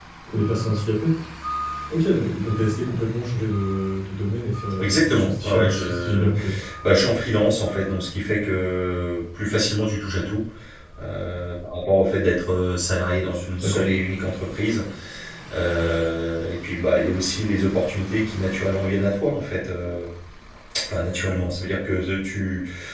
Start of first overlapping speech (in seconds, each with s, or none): 4.7 s